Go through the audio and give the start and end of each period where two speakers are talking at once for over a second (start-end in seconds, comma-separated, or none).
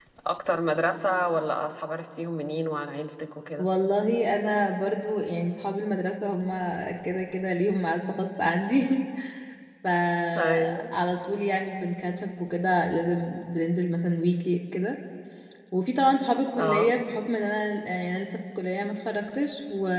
none